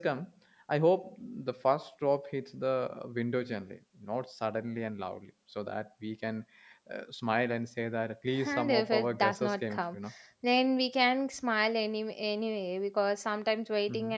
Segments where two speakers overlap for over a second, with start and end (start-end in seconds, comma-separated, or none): 8.4-10.0